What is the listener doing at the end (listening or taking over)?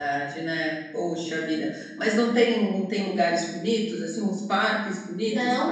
taking over